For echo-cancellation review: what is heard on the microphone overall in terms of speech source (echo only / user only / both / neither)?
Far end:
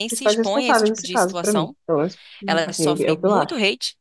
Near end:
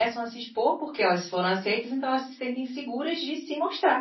user only